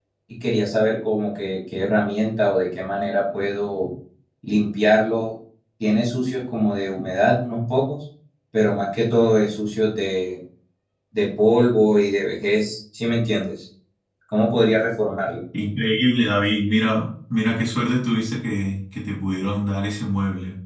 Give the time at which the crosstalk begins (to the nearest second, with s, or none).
none